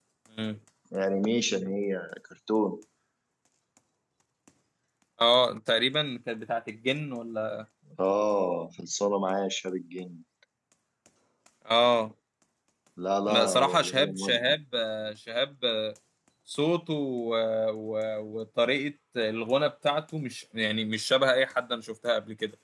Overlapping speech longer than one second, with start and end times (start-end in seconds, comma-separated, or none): 13.3-14.5